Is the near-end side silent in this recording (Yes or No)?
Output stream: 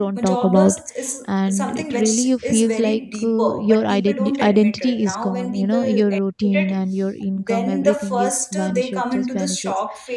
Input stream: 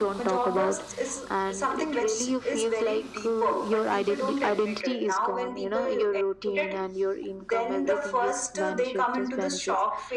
Yes